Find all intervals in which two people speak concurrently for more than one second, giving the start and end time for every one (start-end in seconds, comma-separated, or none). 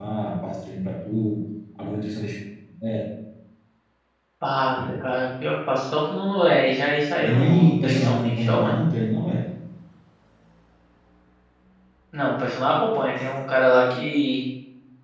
7.3-8.8